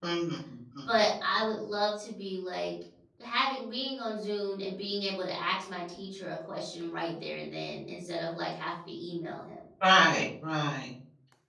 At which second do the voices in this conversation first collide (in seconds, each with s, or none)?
none